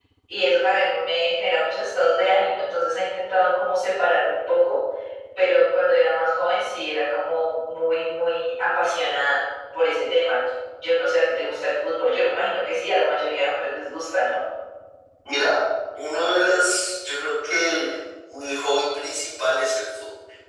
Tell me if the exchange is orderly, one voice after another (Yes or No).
Yes